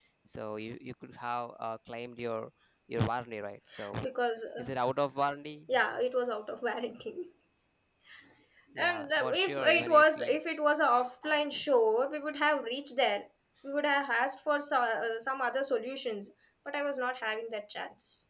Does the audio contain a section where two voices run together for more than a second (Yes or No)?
Yes